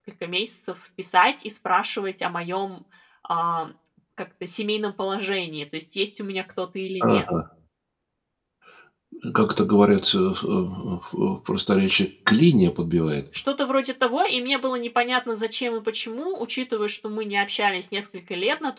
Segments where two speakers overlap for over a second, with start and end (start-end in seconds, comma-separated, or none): none